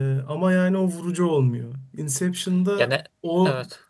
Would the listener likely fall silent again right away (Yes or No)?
Yes